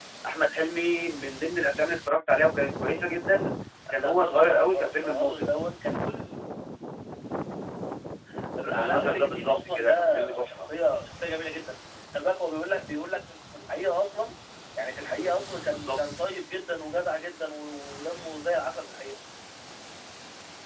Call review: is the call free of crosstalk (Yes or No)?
No